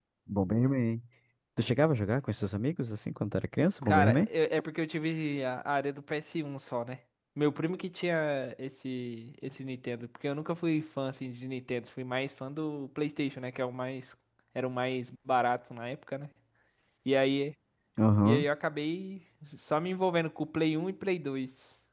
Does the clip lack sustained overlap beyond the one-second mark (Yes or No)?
Yes